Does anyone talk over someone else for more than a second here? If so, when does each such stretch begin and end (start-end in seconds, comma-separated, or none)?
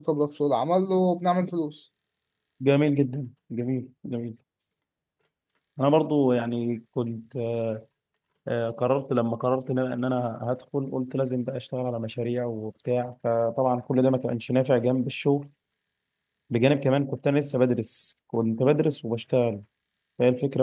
none